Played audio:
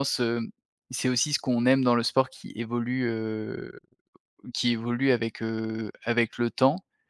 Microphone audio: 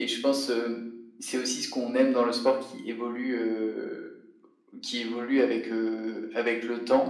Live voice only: none

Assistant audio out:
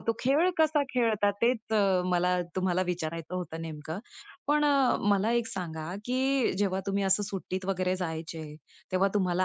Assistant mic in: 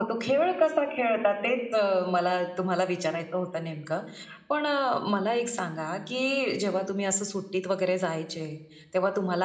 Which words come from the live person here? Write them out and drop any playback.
none

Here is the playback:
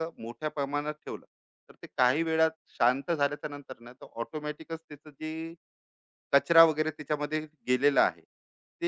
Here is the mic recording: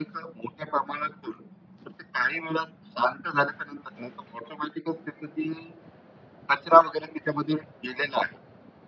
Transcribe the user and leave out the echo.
none

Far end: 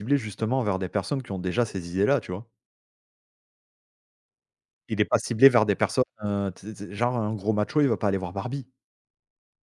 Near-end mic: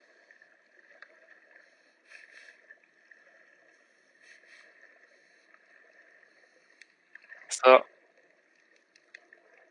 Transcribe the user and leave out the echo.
Ça

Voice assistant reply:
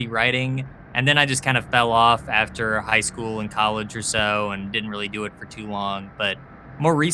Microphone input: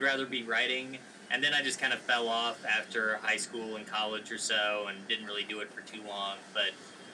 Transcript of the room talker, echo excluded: none

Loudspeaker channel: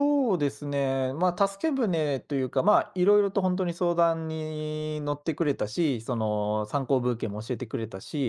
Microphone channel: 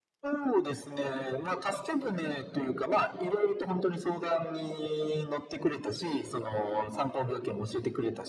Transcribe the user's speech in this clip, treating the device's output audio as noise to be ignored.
none

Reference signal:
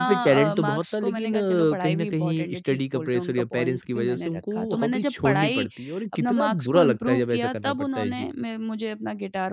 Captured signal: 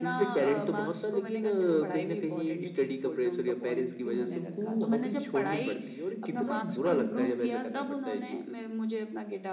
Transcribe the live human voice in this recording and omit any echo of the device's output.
none

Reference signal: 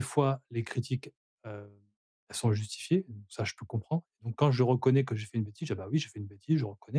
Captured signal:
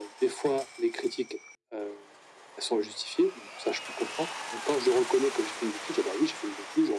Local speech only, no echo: none

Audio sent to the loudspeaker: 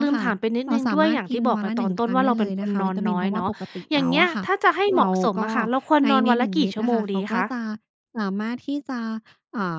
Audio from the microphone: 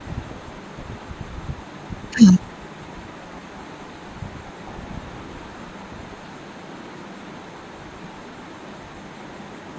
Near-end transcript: ค่ะ

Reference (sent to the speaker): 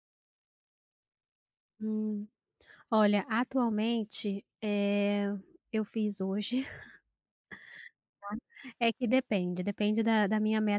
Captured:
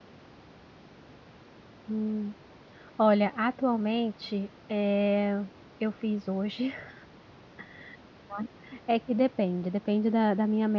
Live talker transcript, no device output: none

